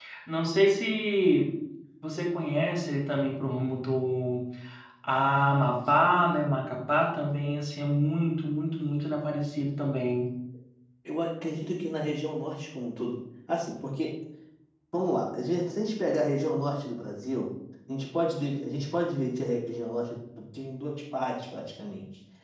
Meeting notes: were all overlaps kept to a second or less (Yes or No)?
Yes